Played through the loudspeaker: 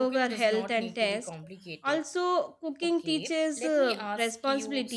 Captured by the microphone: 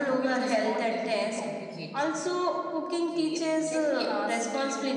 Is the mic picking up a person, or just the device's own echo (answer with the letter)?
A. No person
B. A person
A